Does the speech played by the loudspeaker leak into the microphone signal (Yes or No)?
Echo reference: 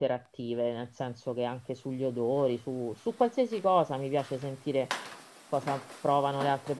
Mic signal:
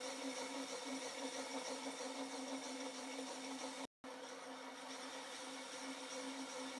No